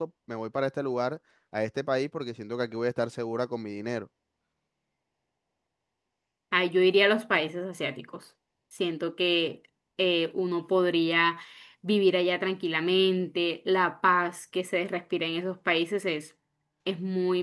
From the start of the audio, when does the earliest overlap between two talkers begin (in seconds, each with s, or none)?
none